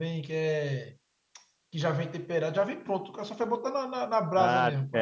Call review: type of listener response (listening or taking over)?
taking over